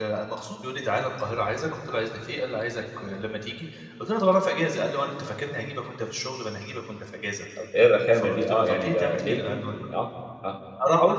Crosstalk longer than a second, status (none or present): present